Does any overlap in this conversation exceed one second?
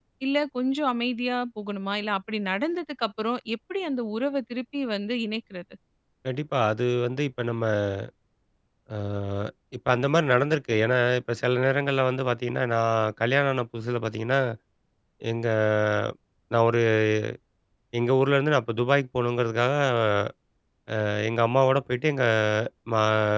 No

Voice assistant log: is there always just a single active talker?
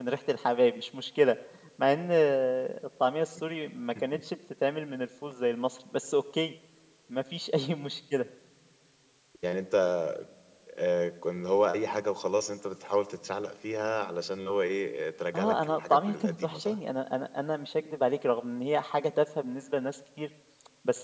No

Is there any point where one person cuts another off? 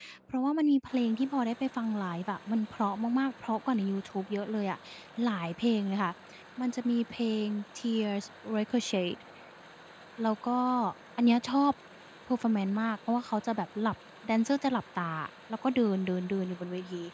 No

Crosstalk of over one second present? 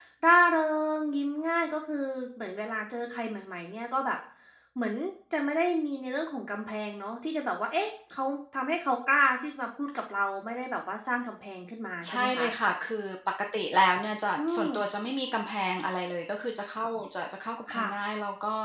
No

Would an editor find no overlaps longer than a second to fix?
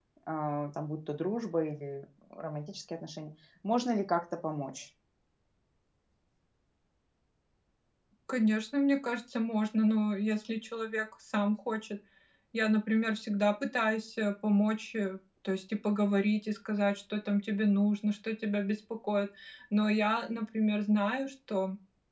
Yes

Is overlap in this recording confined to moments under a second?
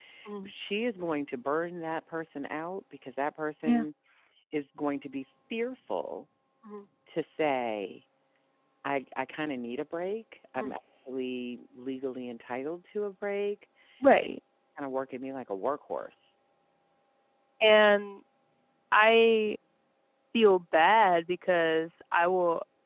Yes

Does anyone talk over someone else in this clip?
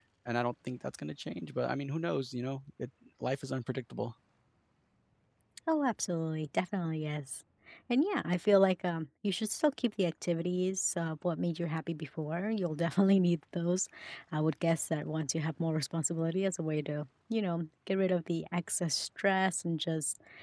No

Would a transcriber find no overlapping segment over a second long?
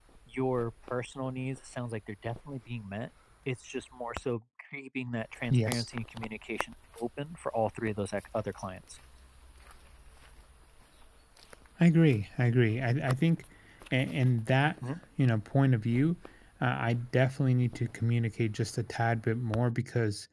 Yes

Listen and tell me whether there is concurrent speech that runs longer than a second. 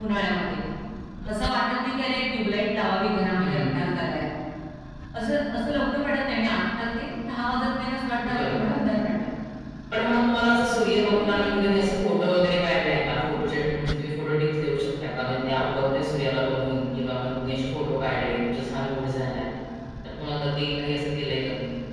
No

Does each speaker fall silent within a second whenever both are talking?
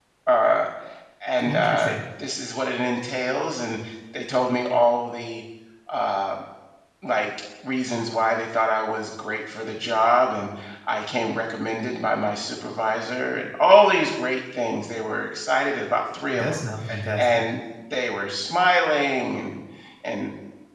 Yes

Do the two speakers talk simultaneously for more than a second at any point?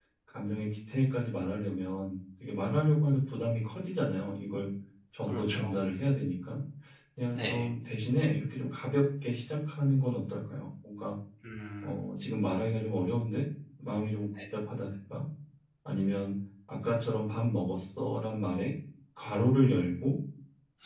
No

